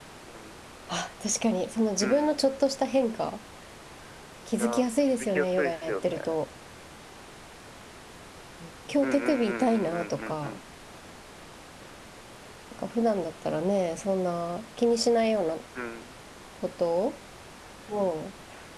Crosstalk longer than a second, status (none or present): present